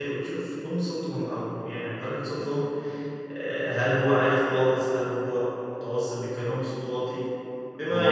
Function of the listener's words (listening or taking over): listening